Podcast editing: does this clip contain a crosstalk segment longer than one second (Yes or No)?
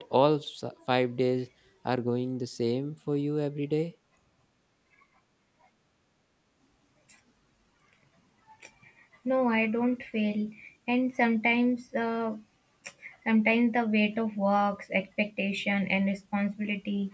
No